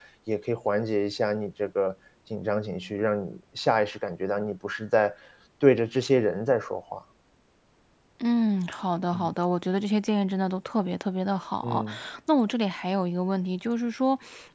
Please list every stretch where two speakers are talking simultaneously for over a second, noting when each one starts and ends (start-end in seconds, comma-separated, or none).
none